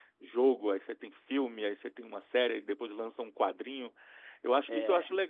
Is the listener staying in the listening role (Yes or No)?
Yes